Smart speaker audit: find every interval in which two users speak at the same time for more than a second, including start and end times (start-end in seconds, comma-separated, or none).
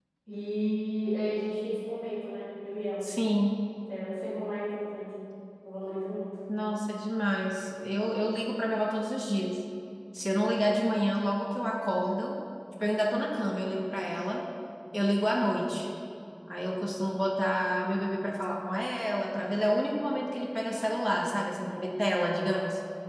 none